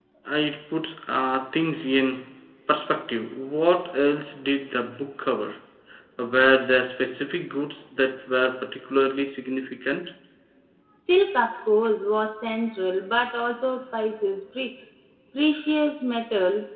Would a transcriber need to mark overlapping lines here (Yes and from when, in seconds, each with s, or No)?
No